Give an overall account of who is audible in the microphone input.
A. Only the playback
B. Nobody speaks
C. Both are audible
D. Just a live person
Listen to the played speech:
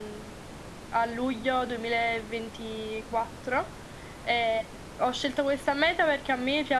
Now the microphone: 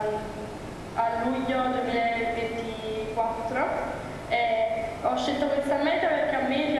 A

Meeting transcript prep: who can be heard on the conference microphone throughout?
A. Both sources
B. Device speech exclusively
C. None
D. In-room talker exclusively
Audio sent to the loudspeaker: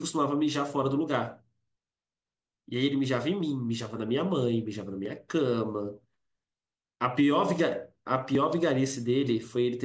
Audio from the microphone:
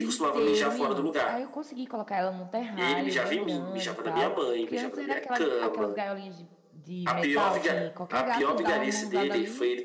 A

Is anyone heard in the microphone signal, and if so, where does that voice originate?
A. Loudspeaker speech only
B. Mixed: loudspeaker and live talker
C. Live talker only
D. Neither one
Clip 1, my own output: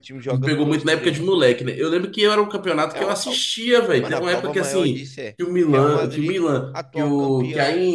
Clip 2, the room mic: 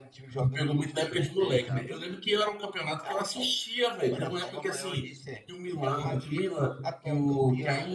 B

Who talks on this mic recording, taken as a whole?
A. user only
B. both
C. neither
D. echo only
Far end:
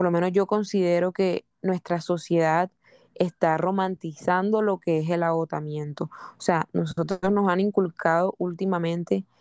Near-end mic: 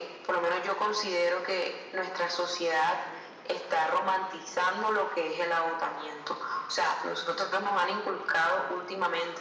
D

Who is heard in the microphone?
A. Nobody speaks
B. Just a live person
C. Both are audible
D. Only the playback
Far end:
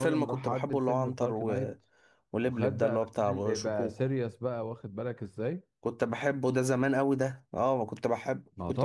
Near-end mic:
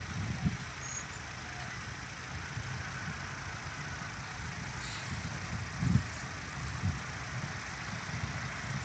A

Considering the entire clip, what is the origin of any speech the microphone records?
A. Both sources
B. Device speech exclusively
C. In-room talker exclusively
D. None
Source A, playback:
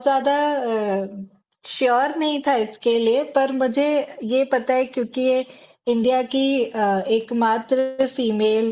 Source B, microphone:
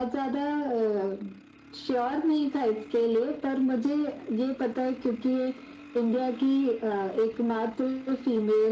B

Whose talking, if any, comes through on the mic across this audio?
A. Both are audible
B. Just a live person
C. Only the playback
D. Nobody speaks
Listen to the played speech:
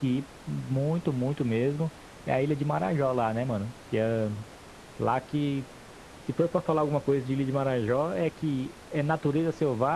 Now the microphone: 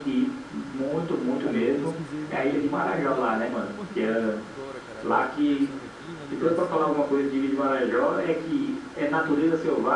A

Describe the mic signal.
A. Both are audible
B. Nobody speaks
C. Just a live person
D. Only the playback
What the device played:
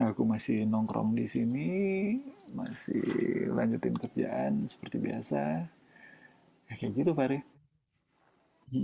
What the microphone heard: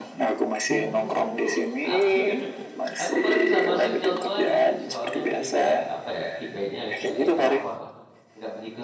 A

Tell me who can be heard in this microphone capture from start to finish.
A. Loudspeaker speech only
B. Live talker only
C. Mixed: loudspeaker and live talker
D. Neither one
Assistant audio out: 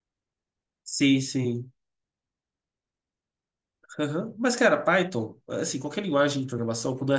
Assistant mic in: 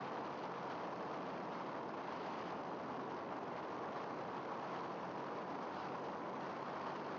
D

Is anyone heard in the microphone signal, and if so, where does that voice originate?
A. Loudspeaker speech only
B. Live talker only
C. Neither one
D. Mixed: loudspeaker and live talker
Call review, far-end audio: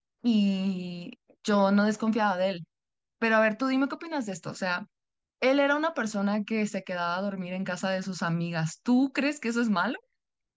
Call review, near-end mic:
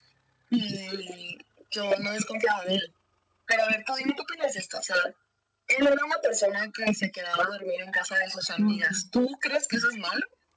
D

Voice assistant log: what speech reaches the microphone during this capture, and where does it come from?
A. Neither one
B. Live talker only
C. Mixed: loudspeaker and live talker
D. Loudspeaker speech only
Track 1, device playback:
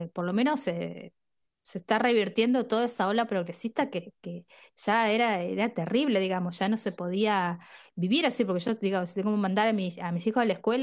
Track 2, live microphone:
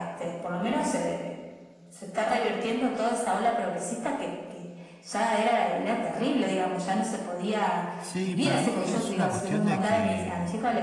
C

